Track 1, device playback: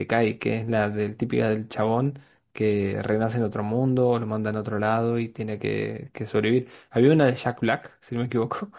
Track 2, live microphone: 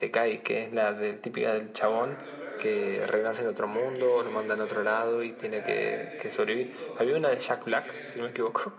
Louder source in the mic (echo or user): echo